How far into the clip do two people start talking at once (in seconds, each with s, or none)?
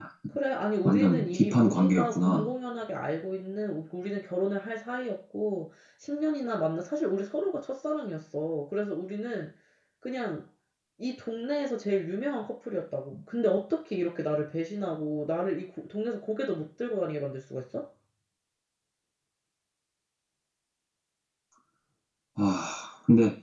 0.8 s